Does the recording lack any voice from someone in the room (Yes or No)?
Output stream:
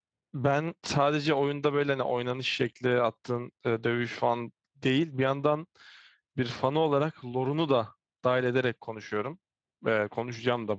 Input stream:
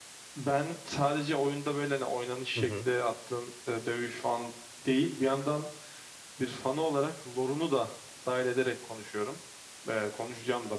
No